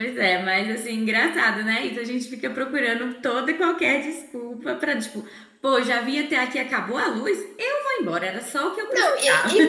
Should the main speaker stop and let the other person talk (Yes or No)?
Yes